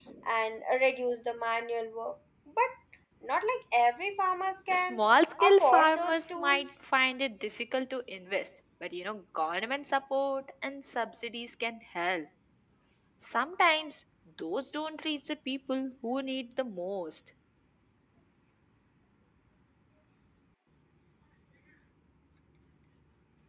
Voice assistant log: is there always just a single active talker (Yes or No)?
No